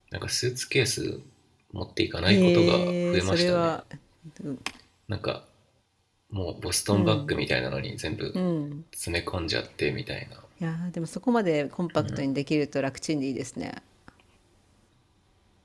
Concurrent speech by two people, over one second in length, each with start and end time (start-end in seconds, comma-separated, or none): 2.3-3.7